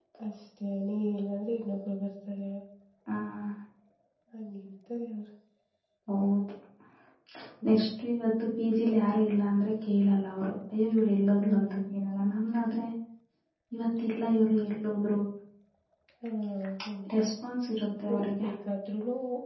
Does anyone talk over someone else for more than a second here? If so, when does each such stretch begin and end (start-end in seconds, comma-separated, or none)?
none